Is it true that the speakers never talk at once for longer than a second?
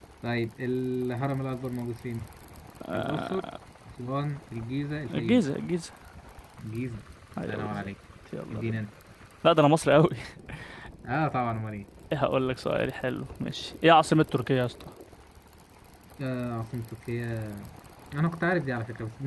Yes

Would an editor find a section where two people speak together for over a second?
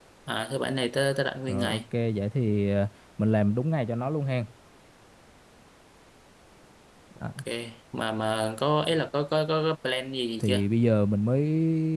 No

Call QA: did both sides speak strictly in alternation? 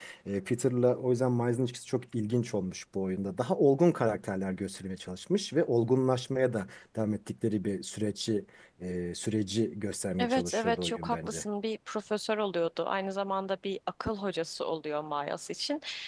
No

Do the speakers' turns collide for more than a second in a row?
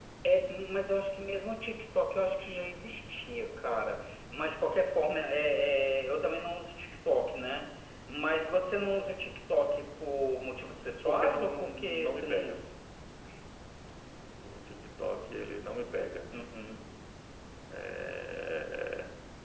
Yes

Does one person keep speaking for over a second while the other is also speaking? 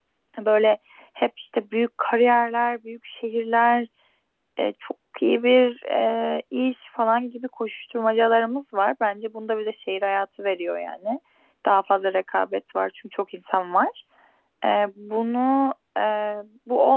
No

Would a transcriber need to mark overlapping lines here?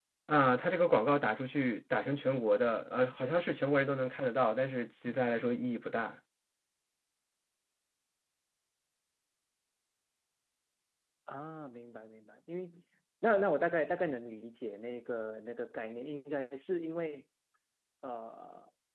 No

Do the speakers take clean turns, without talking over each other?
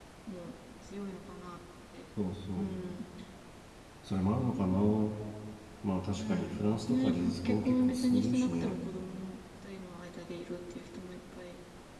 No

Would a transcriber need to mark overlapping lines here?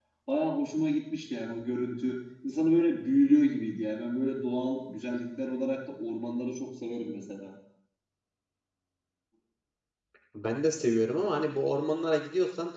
No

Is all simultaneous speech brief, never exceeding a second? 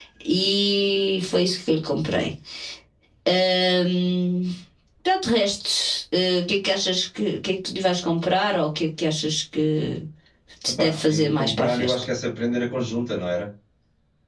No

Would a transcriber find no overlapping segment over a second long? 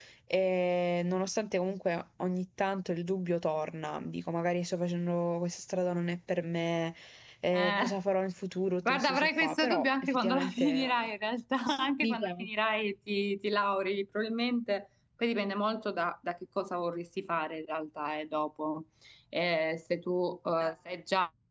No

